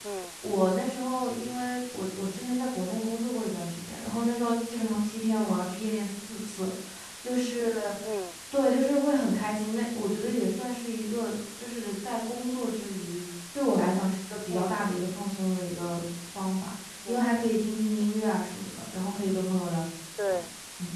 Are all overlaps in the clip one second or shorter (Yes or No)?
Yes